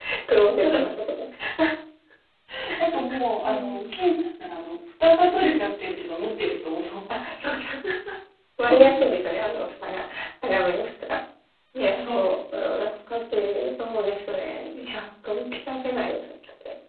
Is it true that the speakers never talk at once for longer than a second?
Yes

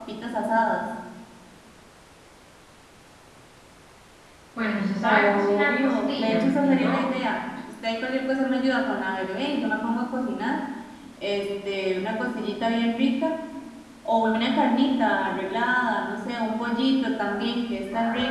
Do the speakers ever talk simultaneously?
Yes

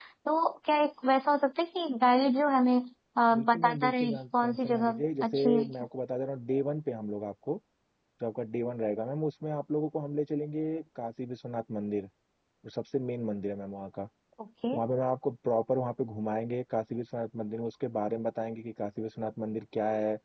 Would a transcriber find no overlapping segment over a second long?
No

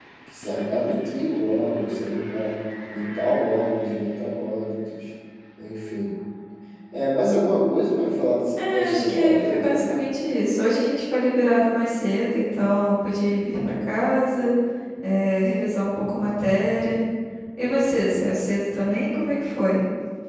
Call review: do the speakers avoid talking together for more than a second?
No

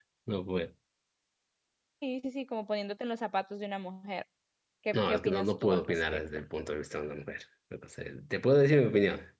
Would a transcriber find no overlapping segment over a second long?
No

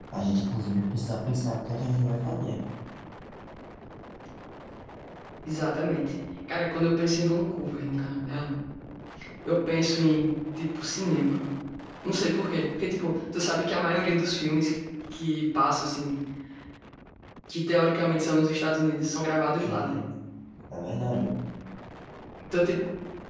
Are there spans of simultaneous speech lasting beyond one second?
No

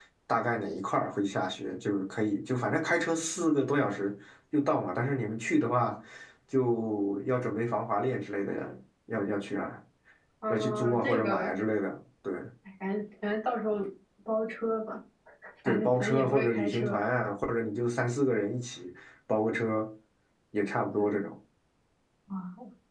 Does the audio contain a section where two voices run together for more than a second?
Yes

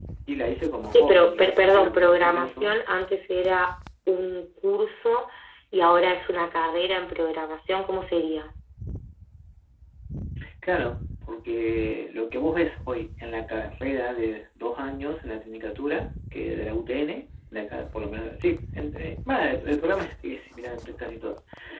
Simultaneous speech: Yes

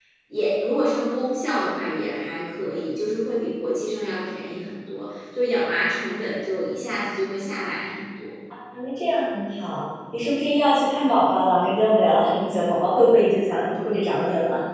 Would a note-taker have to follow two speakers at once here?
No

